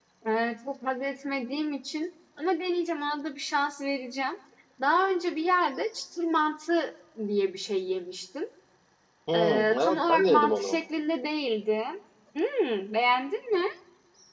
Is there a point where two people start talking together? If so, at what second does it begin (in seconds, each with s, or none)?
9.3 s